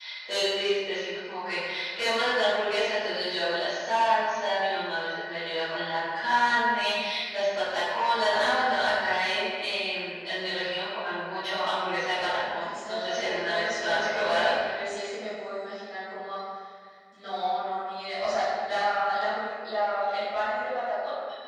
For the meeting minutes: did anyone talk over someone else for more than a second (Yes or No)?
Yes